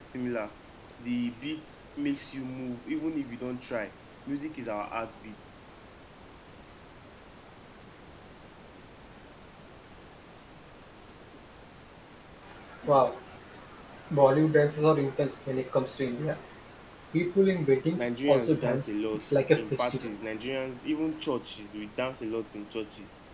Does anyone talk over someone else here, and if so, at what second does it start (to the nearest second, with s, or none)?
18 s